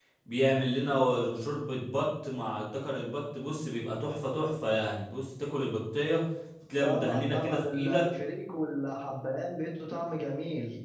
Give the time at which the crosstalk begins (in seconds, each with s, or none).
6.8 s